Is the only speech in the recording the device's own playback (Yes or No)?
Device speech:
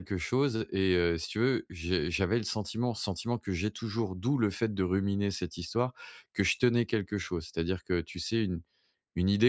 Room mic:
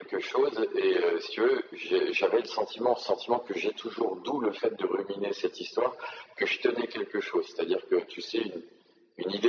Yes